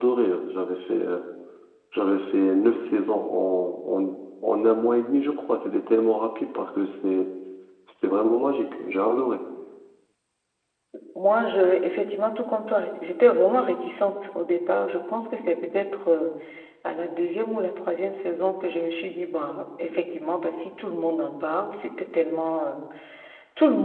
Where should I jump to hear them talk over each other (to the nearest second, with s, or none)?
none